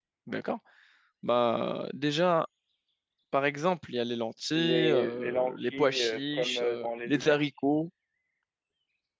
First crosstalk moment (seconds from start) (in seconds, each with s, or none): 4.5 s